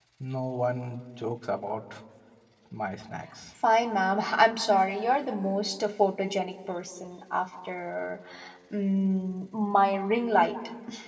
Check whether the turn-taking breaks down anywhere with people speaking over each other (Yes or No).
No